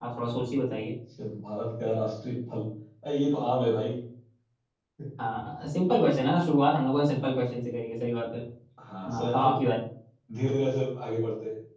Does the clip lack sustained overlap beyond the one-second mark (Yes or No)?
Yes